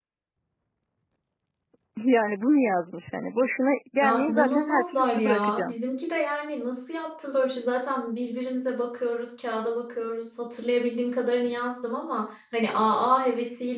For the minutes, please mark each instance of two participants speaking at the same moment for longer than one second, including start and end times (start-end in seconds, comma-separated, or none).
4.0-5.7